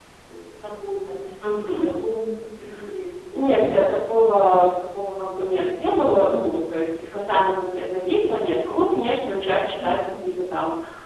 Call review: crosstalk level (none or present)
present